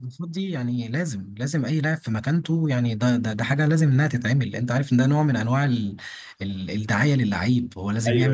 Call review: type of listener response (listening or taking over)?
listening